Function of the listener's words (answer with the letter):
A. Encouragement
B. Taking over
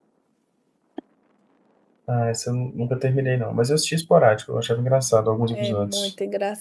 B